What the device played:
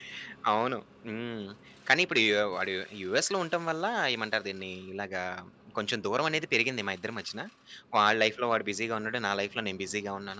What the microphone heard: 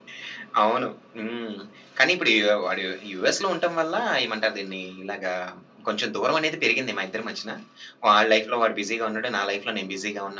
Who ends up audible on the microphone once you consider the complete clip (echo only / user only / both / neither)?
echo only